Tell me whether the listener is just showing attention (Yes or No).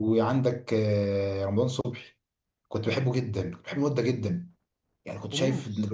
Yes